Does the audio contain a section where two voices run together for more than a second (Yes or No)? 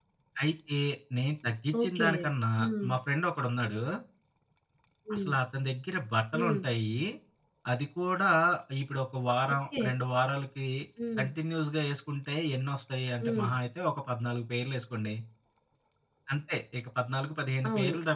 No